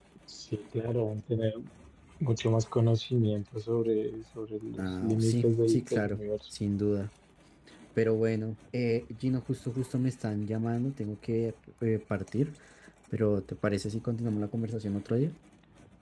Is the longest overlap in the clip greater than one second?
Yes, from 4.8 s

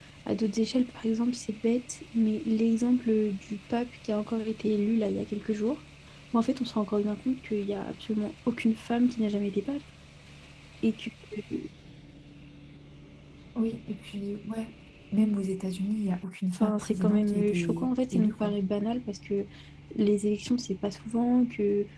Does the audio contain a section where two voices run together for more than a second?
Yes, from 16.5 s

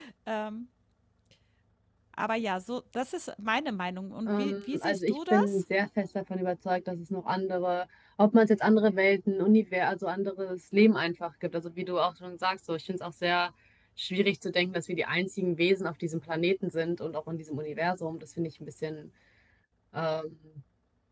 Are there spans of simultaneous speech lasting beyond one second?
Yes, from 4.3 s

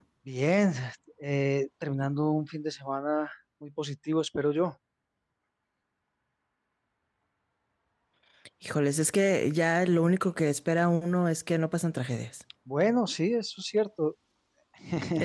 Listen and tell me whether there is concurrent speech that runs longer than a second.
No

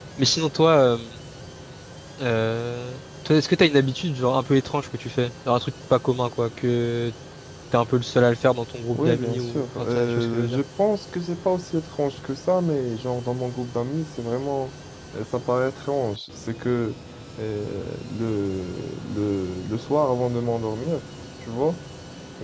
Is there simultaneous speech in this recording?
Yes, from 9.0 s

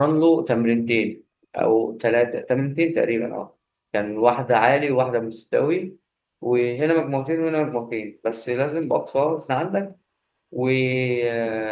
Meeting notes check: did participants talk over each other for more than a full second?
No

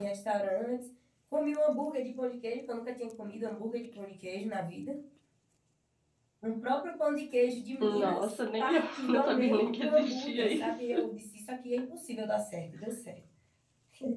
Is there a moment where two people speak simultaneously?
Yes, from 7.8 s

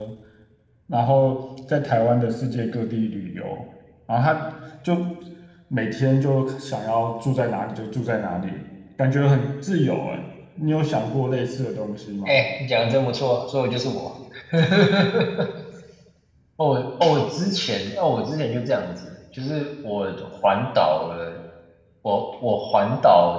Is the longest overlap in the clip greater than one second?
No

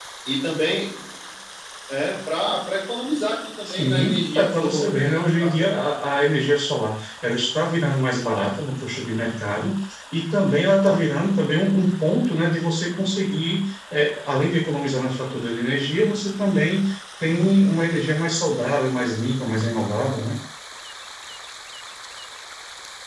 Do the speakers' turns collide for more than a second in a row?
Yes, from 3.6 s

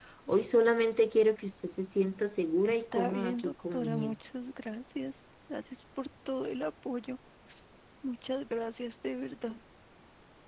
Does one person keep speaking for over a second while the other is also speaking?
Yes, from 2.6 s

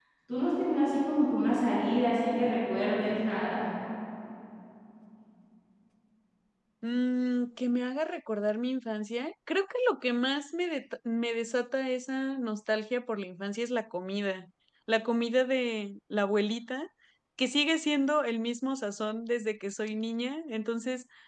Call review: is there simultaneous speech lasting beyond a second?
No

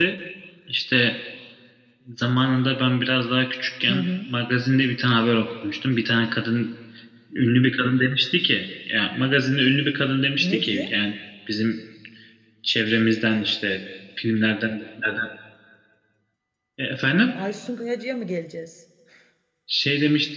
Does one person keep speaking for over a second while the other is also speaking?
No

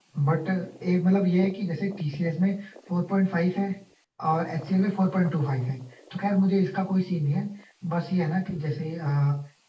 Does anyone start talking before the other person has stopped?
No

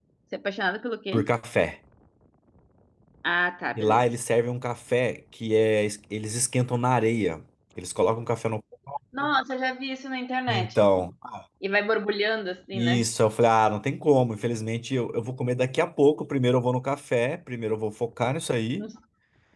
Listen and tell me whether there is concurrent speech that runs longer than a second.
No

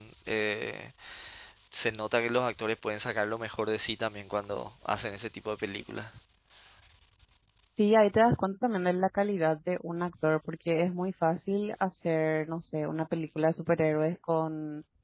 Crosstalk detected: No

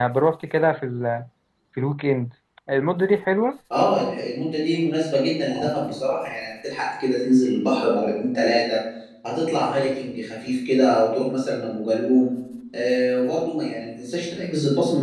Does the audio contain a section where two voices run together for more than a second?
No

